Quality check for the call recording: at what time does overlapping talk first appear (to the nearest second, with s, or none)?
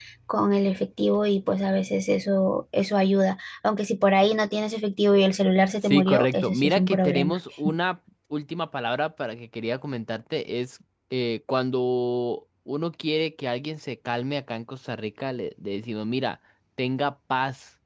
6 s